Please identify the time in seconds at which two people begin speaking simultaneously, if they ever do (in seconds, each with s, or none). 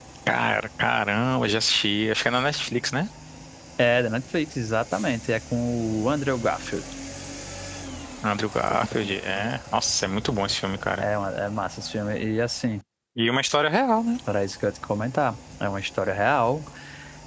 none